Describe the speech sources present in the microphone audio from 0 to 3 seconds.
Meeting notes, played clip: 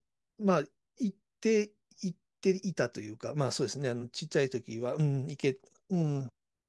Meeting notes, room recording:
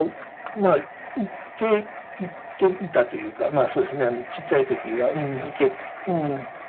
echo only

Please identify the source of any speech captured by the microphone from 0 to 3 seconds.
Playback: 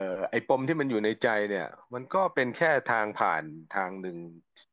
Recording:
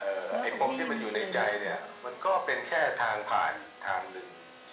both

